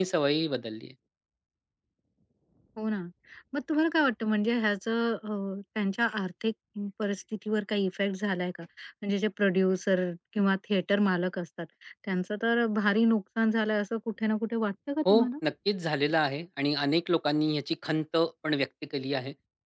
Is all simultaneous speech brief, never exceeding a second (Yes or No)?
Yes